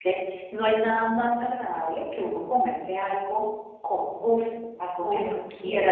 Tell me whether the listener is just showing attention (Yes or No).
Yes